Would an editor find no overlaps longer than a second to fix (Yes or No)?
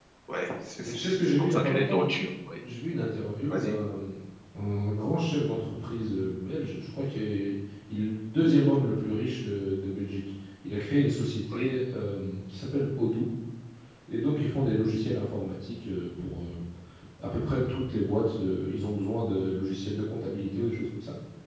No